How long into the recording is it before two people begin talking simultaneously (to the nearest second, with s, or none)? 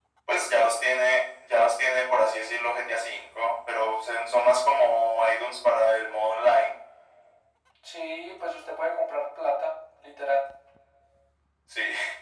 none